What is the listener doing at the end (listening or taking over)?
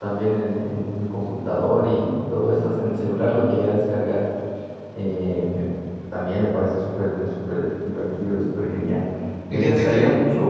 listening